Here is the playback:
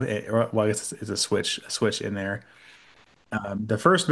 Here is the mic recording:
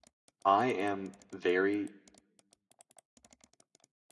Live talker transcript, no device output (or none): I am very